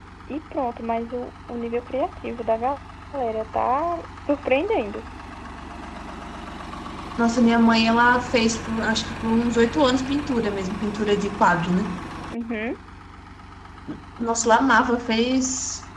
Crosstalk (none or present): none